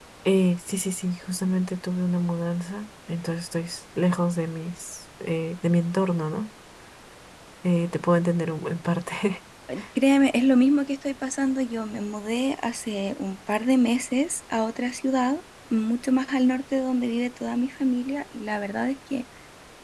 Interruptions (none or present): none